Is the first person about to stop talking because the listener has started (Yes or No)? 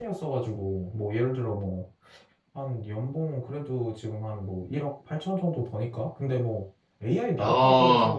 No